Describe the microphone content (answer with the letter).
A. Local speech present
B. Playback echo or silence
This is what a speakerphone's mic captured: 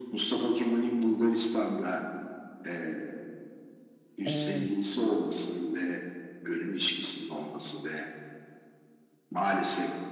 A